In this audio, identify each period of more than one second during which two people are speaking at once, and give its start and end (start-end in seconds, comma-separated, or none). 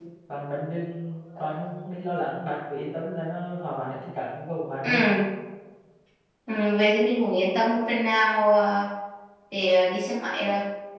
none